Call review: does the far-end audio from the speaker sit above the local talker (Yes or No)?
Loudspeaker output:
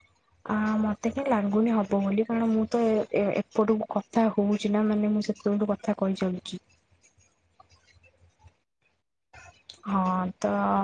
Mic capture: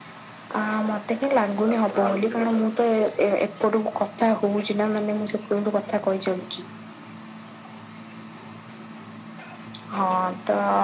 Yes